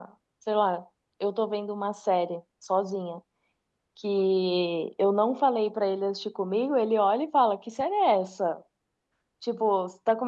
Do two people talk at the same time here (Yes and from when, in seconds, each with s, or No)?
No